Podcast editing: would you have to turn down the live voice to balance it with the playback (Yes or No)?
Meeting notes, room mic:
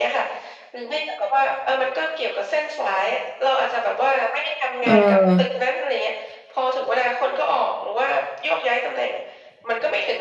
Yes